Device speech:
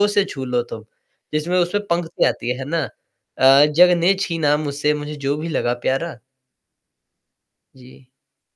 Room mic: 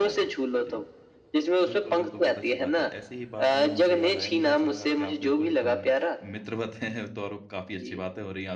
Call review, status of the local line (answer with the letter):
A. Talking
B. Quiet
A